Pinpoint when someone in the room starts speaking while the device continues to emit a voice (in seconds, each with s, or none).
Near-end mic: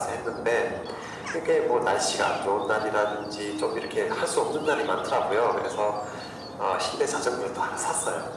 none